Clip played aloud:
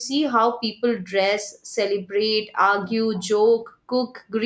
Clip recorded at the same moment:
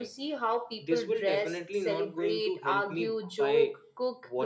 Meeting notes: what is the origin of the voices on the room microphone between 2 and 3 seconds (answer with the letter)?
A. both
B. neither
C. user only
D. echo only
A